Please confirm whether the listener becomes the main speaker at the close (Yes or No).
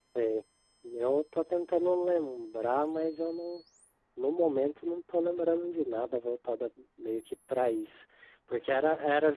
No